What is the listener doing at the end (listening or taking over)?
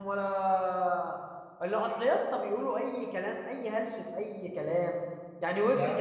listening